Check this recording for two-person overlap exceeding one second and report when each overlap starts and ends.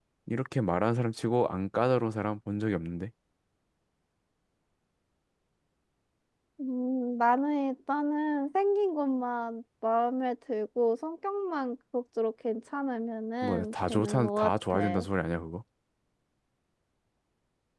13.4-15.0

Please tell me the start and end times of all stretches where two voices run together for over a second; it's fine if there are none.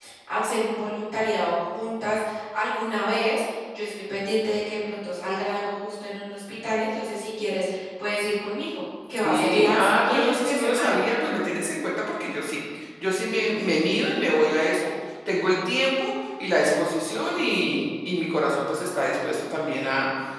9.2-11.0

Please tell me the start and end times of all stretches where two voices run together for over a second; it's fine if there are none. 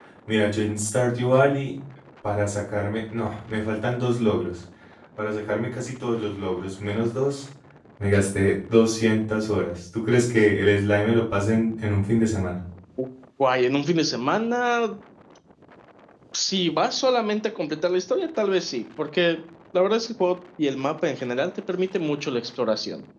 none

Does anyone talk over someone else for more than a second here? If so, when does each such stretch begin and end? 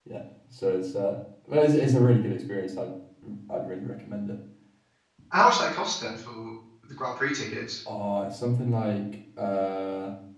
none

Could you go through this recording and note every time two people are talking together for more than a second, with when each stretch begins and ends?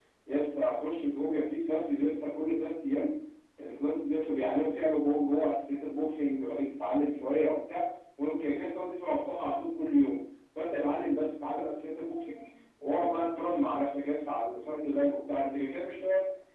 none

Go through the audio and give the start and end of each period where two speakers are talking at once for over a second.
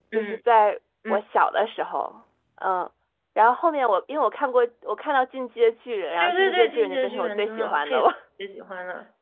6.2-8.0

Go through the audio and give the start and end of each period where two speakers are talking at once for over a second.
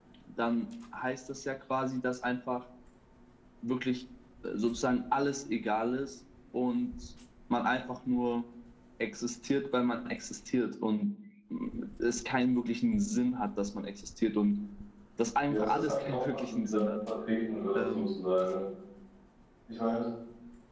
15.5-16.9

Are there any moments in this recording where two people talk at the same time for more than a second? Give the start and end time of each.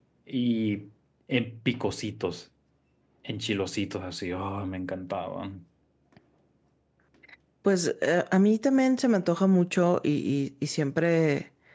none

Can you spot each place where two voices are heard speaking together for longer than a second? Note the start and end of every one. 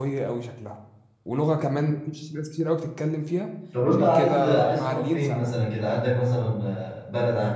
3.9-5.5

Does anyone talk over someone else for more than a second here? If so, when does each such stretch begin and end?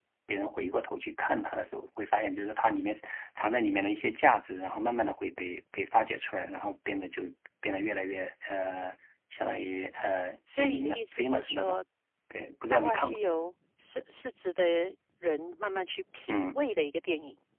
10.6-11.8

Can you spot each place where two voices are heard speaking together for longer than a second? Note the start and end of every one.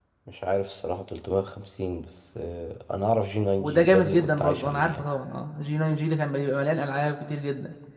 3.6-5.0

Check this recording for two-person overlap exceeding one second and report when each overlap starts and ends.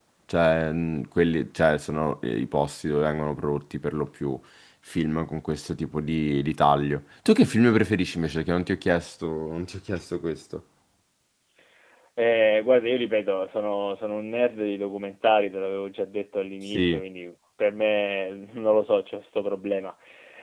none

